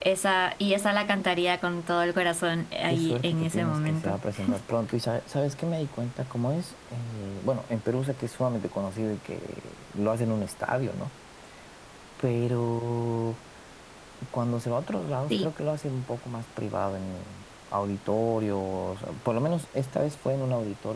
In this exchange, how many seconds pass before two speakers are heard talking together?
2.9 s

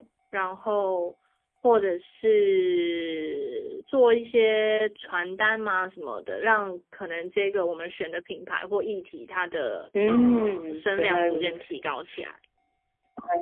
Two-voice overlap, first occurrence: 9.9 s

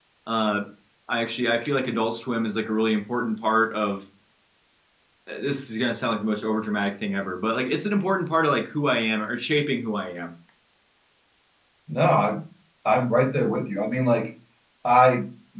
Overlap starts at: none

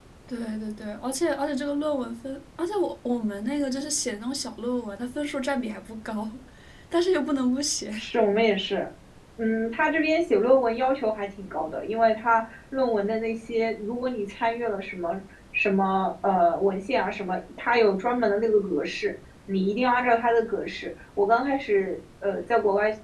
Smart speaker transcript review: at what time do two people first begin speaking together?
none

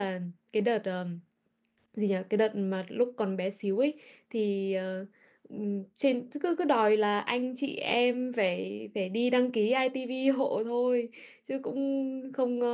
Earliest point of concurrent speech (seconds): none

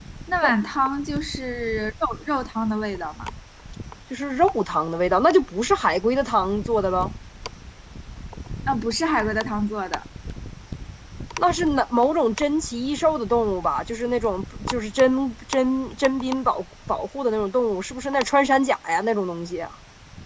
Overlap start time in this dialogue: none

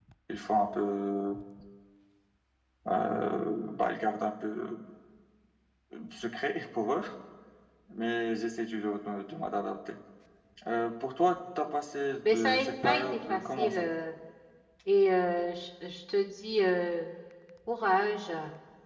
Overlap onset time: 12.2 s

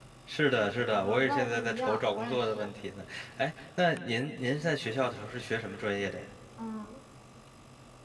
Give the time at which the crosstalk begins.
0.9 s

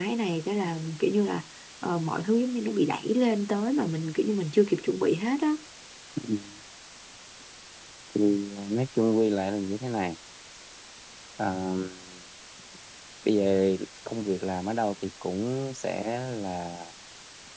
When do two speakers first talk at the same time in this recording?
none

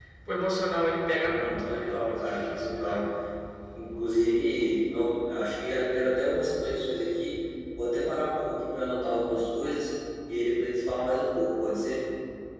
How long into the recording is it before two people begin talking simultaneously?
1.3 s

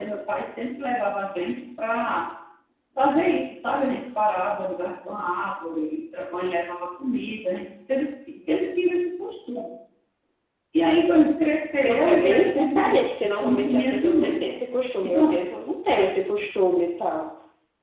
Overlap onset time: 11.9 s

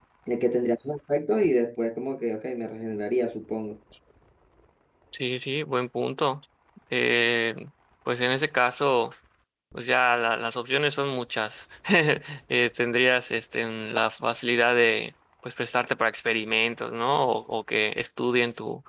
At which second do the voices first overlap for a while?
none

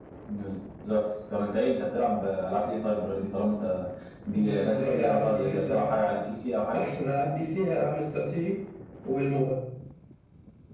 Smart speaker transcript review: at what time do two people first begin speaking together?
4.3 s

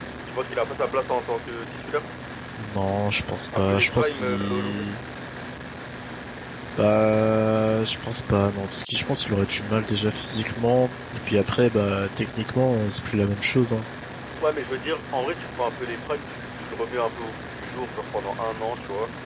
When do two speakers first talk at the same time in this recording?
3.5 s

